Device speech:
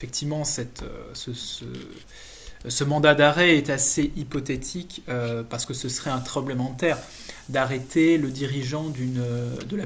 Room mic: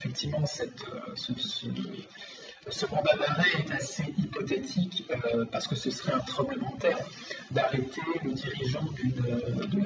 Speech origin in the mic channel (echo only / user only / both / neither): echo only